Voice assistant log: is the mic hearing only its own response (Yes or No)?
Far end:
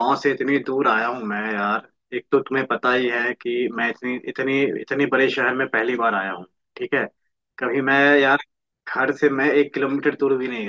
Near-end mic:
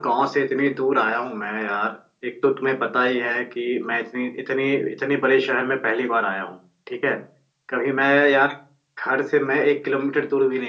Yes